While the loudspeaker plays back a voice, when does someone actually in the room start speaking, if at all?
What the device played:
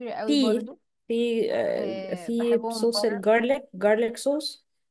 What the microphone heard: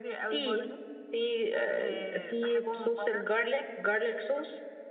none

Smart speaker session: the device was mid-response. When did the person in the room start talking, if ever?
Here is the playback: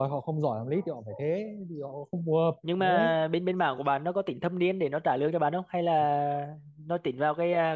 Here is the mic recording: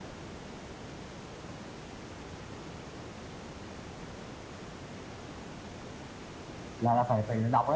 6.8 s

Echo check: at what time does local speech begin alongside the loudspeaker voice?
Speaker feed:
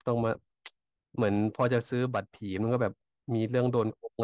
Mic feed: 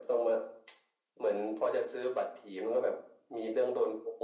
none

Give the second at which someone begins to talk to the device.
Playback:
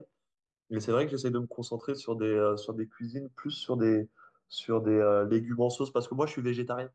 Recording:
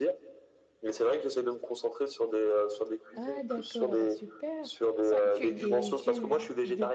3.1 s

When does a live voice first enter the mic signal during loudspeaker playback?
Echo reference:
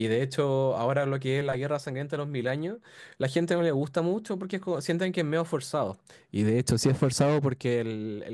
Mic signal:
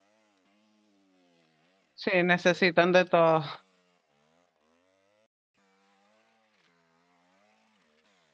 2.0 s

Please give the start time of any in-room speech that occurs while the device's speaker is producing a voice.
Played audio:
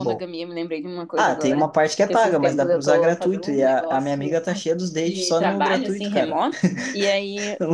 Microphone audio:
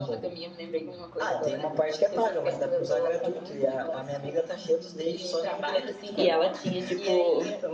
6.2 s

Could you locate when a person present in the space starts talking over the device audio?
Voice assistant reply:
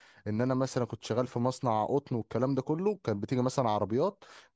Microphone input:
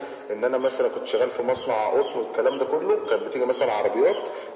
none

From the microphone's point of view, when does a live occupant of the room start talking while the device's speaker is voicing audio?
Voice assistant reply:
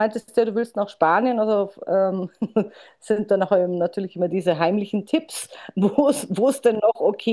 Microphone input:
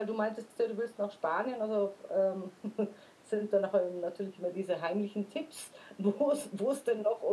none

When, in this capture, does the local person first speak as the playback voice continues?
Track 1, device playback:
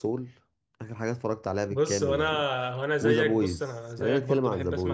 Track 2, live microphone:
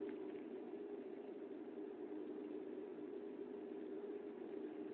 none

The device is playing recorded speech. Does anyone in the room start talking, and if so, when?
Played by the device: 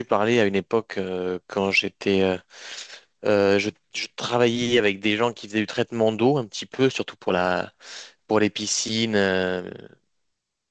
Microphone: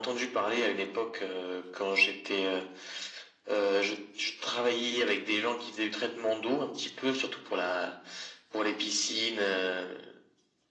none

